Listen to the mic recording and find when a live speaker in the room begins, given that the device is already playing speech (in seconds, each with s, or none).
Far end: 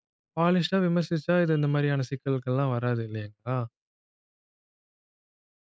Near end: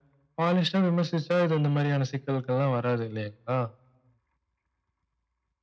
none